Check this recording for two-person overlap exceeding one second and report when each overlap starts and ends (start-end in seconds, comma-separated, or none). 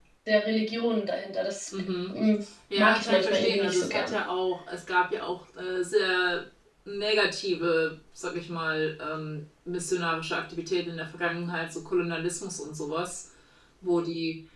2.8-4.2